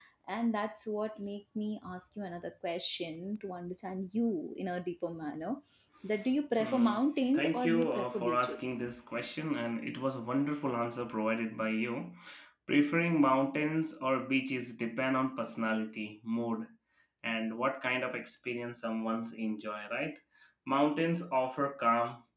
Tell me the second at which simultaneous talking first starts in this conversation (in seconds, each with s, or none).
6.6 s